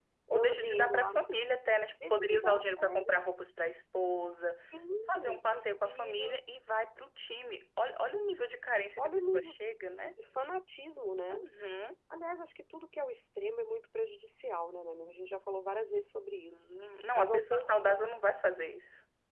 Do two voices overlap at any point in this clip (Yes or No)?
Yes